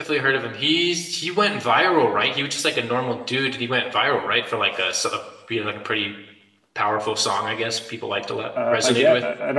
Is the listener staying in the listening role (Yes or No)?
No